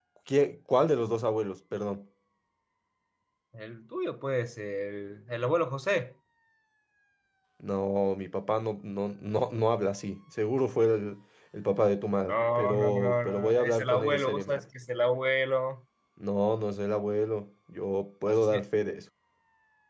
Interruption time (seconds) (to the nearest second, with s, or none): 12 s